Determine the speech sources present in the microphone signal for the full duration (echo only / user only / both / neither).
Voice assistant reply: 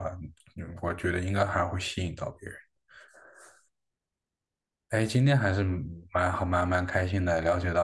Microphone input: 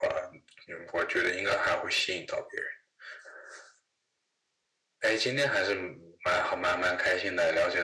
echo only